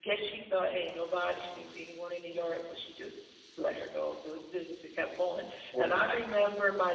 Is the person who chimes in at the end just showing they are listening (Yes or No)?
Yes